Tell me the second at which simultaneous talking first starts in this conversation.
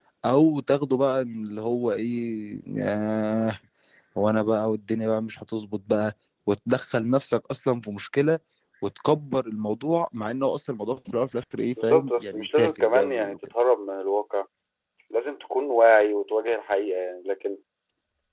11.8 s

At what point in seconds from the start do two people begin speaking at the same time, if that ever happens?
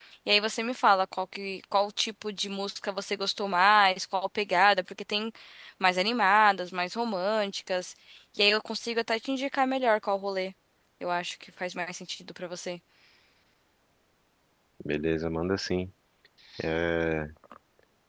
none

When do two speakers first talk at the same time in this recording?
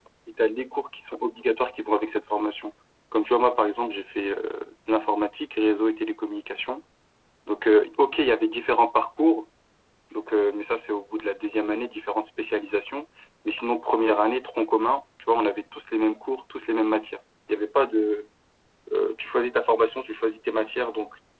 none

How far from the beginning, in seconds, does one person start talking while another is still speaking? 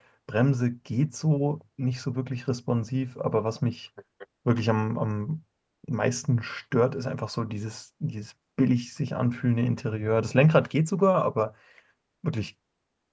none

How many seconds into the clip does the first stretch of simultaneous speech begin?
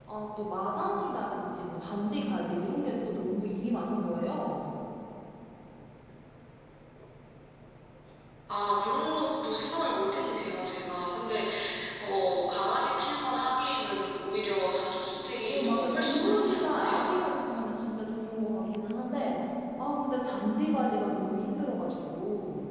15.5 s

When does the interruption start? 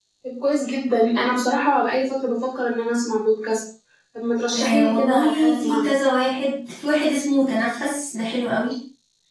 4.6 s

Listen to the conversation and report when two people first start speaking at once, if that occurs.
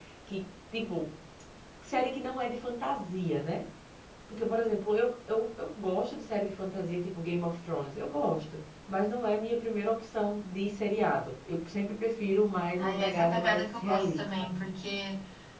12.8 s

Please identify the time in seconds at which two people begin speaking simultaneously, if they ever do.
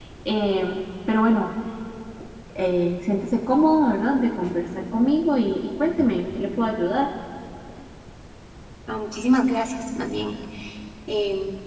none

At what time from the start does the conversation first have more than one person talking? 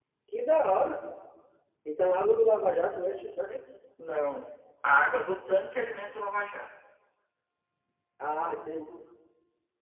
none

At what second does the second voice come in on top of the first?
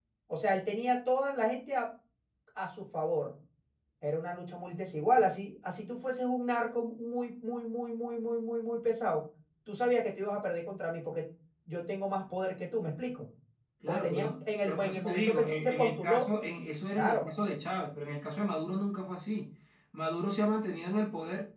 13.9 s

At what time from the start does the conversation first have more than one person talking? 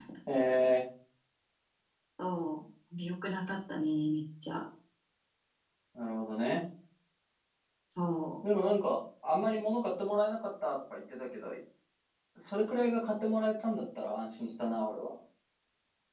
none

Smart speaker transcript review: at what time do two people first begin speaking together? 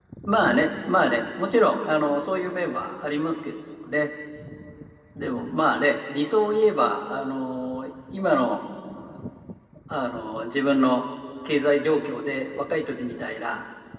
none

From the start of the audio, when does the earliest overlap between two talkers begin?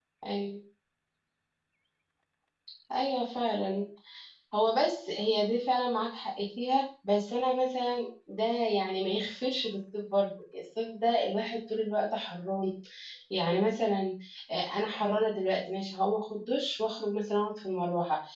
none

